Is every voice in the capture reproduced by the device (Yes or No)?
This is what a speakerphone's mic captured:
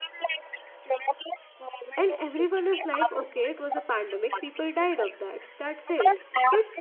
No